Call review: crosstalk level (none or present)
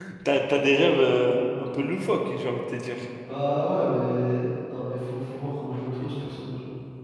none